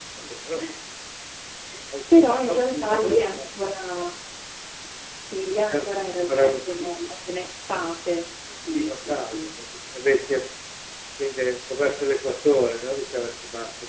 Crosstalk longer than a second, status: present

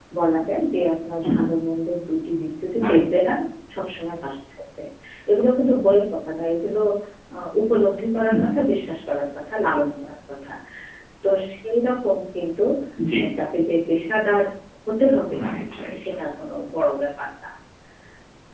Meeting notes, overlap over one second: none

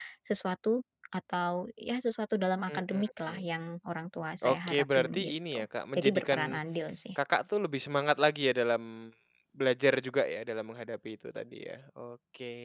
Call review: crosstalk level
present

